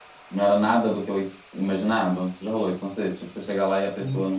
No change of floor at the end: No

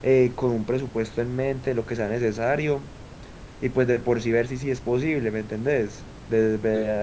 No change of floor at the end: Yes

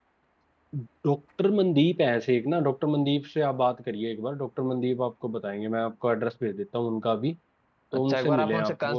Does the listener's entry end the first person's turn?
Yes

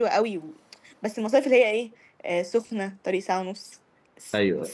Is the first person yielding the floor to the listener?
No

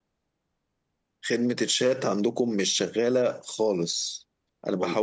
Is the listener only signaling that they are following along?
Yes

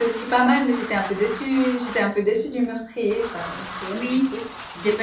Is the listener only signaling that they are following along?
No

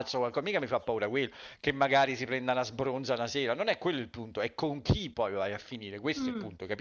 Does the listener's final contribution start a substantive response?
Yes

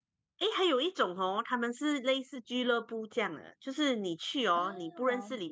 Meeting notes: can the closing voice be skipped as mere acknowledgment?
Yes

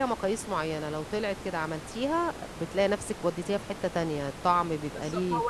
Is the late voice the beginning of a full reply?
Yes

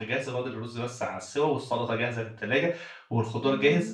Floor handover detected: No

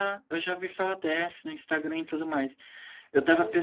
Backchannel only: Yes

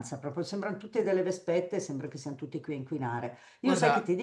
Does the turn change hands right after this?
No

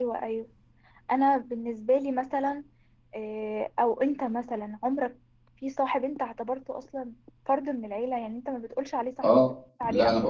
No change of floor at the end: No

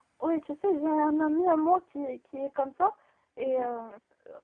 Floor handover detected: No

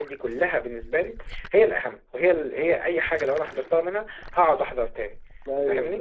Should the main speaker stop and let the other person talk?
Yes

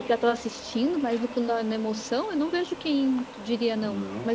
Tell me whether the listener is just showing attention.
No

